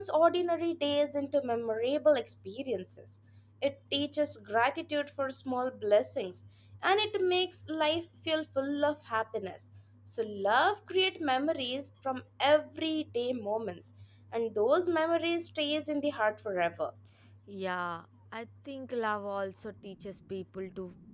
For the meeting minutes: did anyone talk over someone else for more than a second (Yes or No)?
No